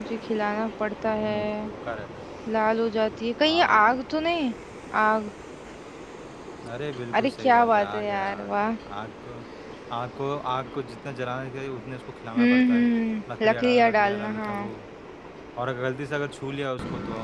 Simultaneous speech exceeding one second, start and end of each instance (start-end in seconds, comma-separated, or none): 7.1-8.5, 13.4-14.7